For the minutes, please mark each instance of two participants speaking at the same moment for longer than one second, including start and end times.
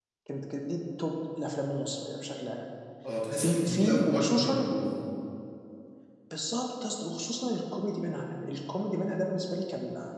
3.3-4.7

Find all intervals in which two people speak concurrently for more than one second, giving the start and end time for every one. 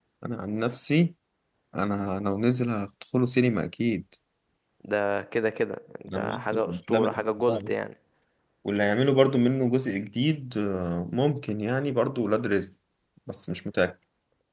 6.1-7.7

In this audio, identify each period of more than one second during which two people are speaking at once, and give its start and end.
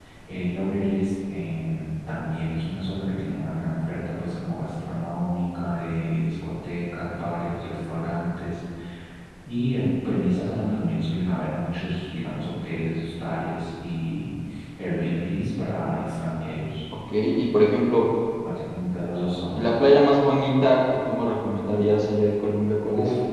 none

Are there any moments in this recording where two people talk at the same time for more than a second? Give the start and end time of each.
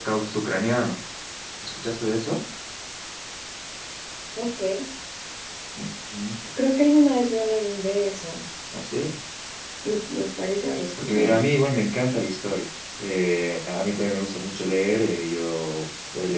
none

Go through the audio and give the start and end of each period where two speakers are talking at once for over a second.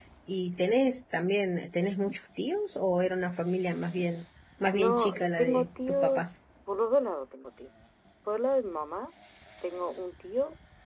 4.7-6.2

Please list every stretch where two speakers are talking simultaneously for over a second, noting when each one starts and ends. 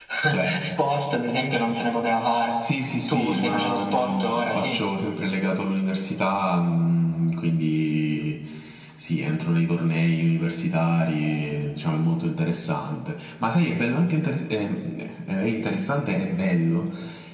3.1-4.8

